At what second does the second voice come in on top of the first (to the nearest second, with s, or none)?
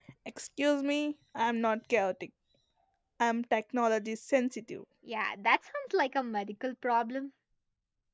none